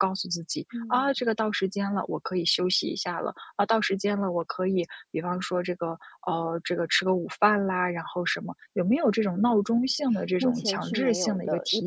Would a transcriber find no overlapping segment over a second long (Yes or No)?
No